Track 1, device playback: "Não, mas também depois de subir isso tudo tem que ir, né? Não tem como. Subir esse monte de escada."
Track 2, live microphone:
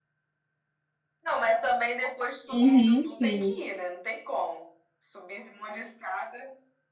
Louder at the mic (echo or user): user